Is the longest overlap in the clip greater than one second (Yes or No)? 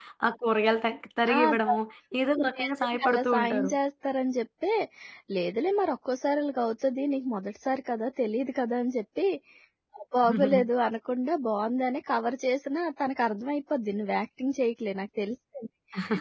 Yes